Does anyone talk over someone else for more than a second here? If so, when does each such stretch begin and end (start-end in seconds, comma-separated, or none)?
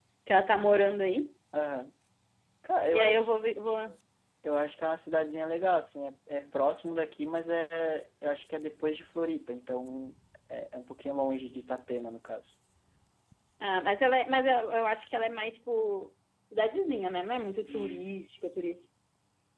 none